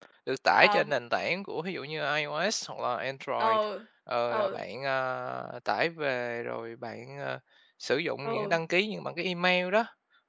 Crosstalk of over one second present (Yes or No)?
No